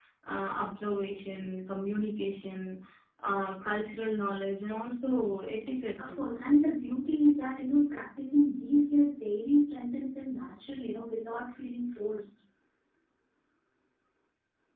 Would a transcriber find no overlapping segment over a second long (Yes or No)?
Yes